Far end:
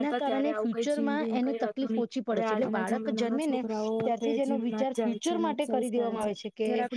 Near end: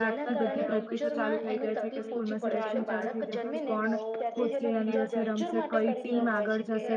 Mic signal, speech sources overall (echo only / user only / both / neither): both